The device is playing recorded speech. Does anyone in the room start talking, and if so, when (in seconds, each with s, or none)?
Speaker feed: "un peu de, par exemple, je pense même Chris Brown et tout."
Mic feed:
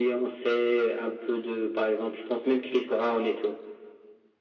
none